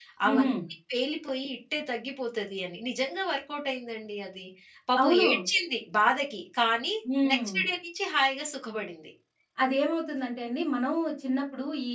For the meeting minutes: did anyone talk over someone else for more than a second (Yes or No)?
No